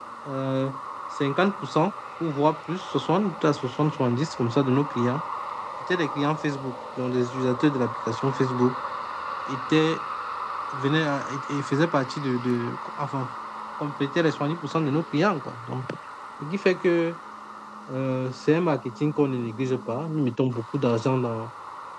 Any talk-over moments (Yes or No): No